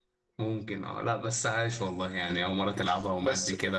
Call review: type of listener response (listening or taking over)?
taking over